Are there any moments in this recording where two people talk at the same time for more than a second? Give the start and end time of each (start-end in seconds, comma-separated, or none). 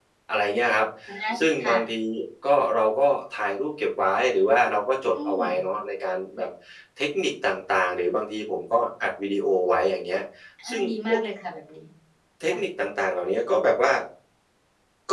none